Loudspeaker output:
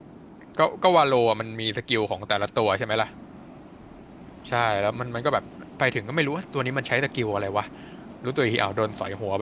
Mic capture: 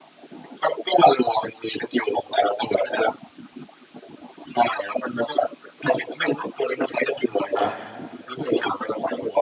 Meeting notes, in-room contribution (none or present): present